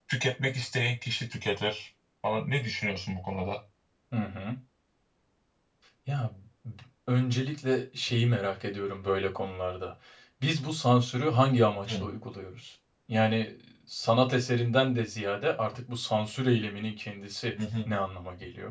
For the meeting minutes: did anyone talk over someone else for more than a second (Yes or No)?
No